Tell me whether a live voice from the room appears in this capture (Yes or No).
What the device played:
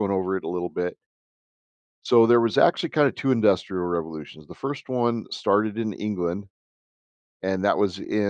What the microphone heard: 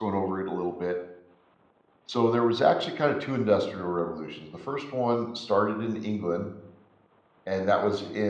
No